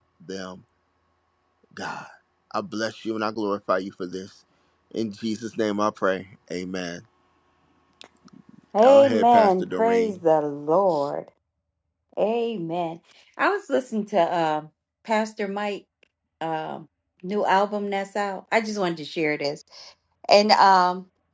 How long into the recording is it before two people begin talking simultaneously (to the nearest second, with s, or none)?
9 s